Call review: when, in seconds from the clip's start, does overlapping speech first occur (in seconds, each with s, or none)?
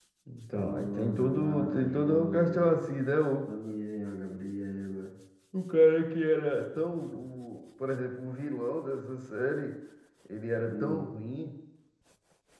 0.5 s